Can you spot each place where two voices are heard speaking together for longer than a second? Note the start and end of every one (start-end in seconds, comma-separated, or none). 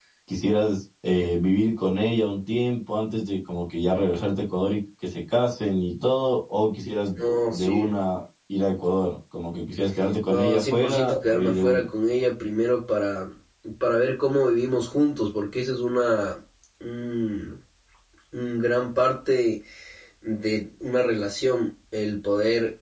10.3-11.9